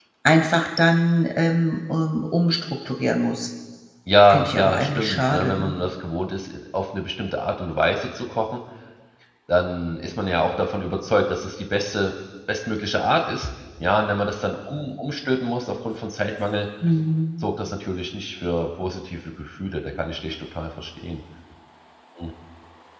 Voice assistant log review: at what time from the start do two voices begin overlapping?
4 s

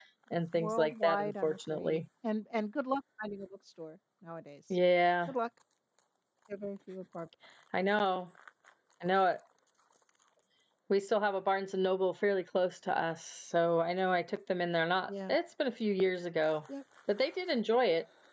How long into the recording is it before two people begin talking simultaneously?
1 s

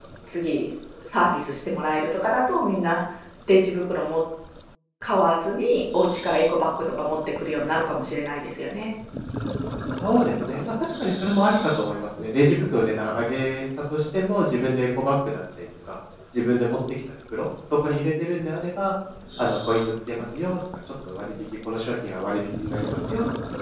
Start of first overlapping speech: none

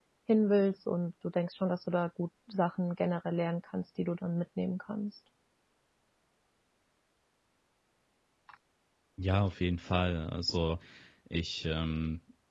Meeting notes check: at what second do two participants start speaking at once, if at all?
none

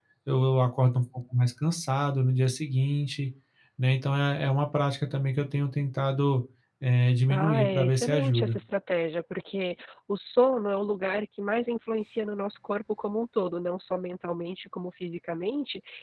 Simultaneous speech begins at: 7 s

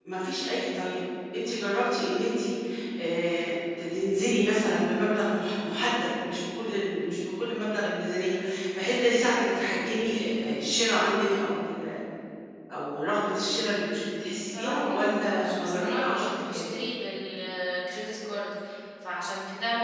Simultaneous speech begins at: 14 s

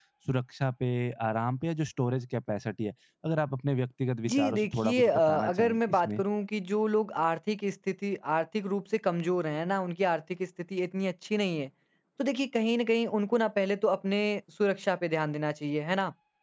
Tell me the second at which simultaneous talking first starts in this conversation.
4 s

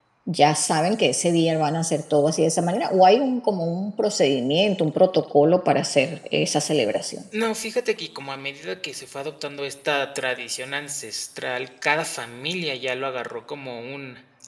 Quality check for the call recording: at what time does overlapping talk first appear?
none

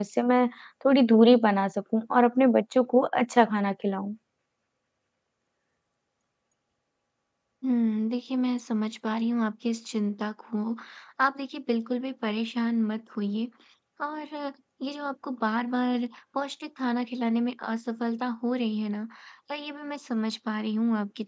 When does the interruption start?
none

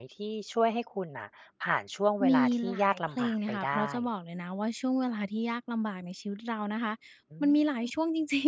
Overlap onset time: 2 s

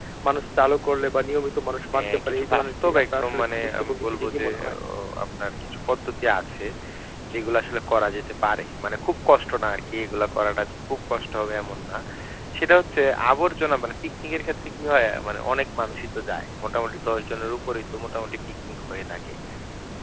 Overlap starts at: 2 s

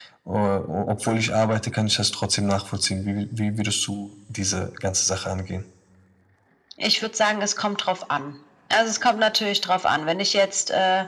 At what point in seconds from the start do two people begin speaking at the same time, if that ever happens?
none

